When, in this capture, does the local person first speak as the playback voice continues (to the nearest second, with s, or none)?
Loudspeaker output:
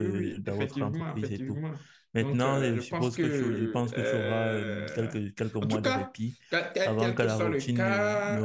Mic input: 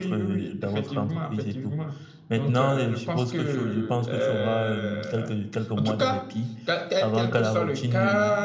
none